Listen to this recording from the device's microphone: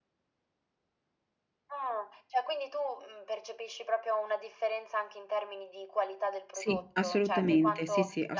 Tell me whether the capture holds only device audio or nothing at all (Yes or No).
No